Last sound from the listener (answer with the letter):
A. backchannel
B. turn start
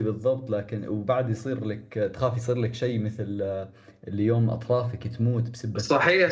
B